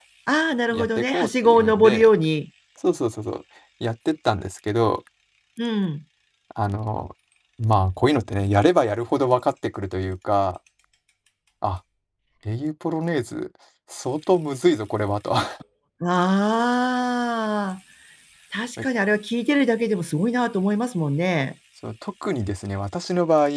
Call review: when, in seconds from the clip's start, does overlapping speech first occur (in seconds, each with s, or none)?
0.7 s